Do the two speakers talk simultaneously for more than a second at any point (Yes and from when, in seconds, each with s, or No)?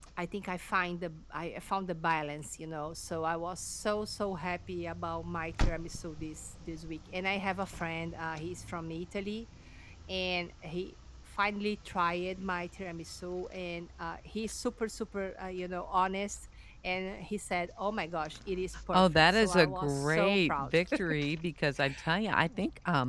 Yes, from 18.9 s